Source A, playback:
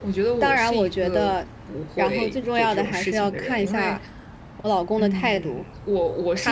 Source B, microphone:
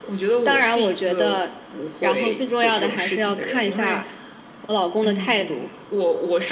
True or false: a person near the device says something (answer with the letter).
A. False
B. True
A